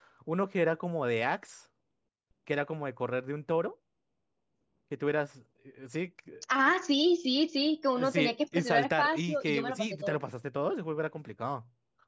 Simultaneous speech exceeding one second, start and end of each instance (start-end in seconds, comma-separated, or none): 8.0-10.2